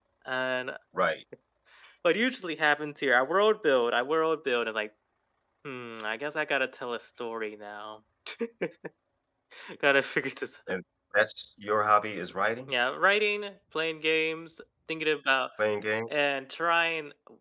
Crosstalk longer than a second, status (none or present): none